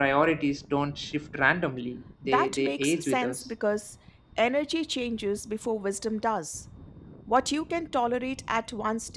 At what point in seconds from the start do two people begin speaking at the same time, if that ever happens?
2 s

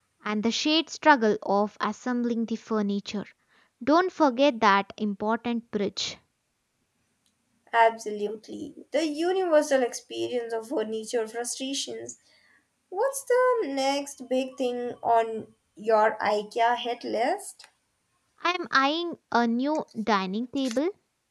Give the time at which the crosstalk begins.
none

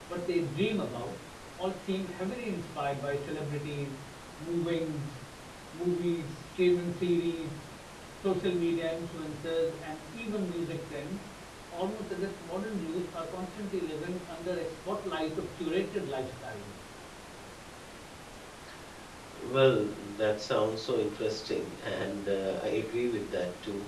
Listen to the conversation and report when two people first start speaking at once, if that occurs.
none

